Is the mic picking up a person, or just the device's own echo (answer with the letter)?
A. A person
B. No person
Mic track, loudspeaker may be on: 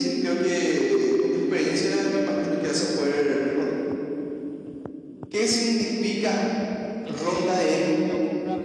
A